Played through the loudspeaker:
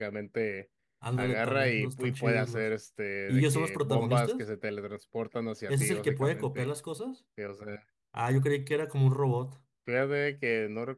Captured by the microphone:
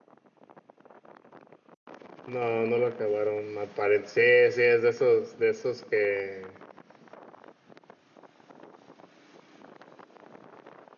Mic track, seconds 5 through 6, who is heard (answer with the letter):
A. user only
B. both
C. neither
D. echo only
A